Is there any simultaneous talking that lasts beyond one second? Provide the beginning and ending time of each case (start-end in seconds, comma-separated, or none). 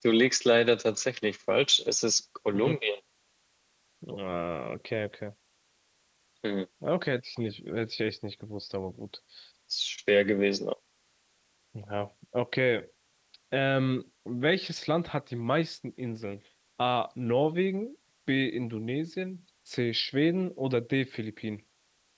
none